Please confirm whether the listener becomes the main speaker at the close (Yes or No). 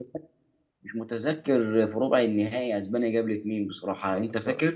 Yes